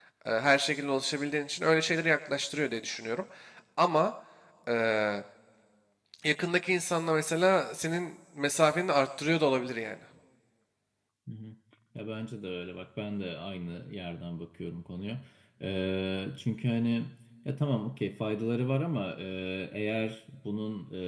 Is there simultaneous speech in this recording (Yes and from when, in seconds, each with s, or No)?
No